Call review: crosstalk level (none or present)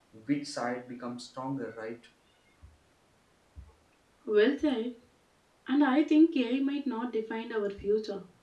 none